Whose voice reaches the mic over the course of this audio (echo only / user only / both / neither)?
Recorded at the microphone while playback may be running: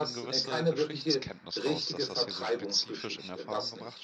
both